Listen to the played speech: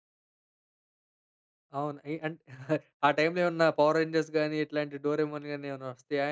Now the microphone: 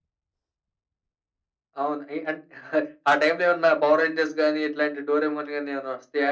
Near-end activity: none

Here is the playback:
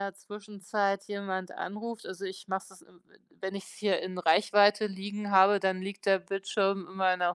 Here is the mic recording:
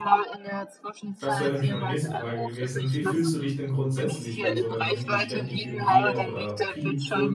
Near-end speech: present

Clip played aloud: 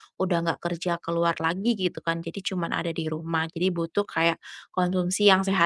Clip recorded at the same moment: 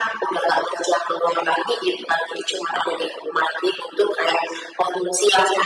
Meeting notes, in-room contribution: none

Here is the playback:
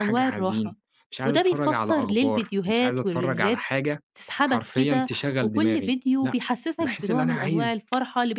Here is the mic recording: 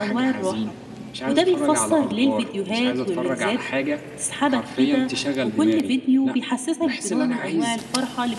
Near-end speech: none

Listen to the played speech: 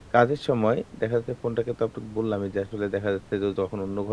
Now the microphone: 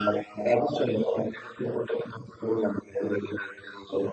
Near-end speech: none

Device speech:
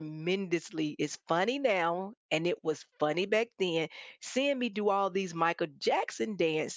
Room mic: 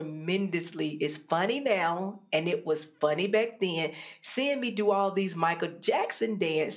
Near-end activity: none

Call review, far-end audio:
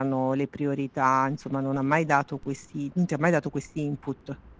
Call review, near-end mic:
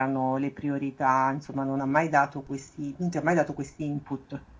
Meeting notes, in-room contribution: none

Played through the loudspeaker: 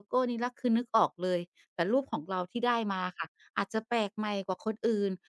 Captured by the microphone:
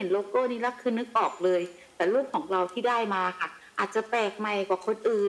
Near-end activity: none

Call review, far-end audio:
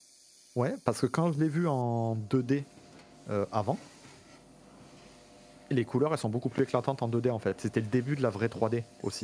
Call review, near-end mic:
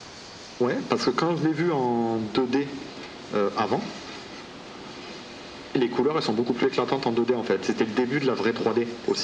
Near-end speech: none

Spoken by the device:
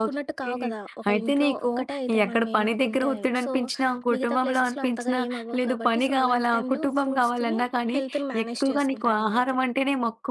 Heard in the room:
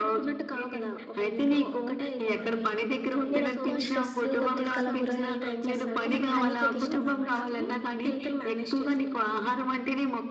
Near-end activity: present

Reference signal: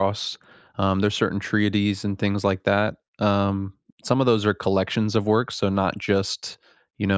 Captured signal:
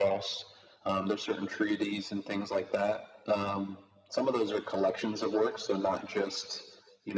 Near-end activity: none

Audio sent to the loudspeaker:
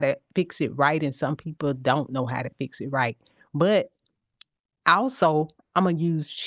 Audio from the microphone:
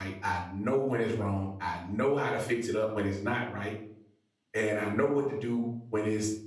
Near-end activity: present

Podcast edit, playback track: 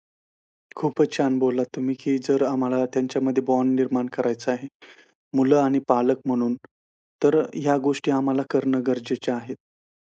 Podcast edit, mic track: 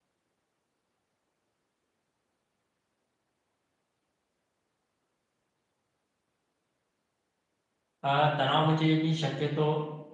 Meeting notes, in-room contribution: present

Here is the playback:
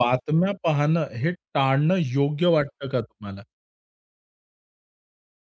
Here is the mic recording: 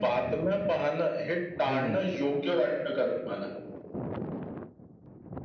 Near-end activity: present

